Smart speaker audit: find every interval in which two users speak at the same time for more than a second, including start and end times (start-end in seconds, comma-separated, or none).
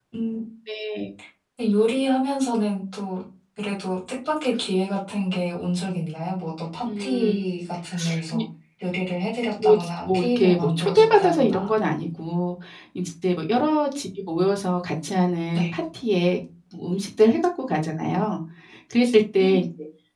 9.6-11.7